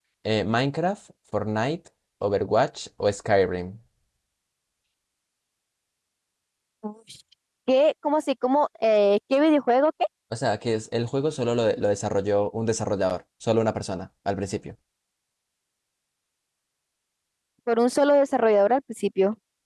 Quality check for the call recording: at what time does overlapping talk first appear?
none

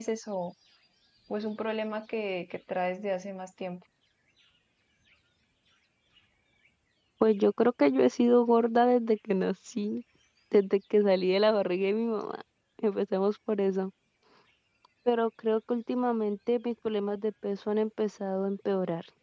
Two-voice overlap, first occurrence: none

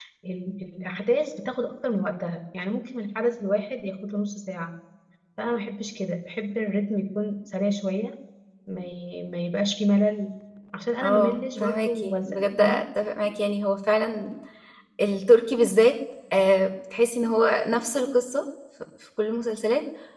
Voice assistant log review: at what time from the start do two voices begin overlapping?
11 s

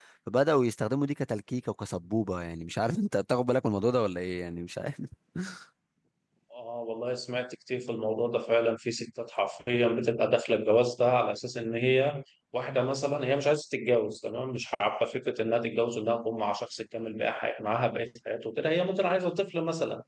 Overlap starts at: none

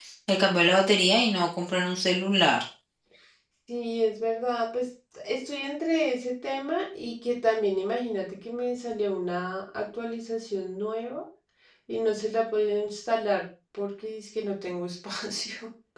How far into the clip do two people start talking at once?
none

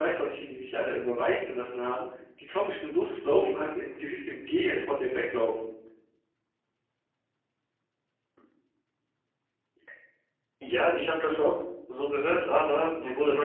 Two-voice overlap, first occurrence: none

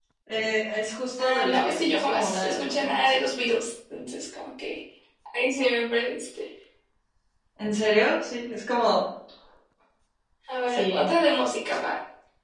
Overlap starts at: 1 s

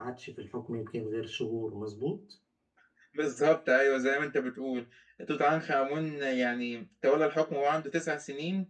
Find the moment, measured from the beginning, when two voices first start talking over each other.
none

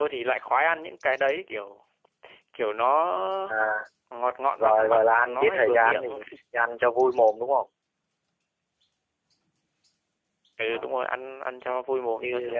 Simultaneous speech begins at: 5 s

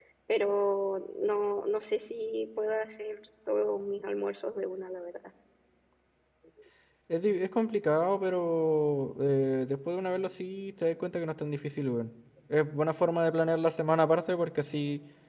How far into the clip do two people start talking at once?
none

